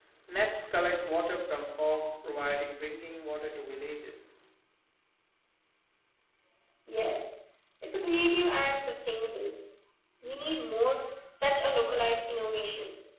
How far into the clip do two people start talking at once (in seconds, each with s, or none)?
none